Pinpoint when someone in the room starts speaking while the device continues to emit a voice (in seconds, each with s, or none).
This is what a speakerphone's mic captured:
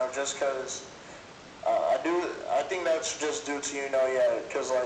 none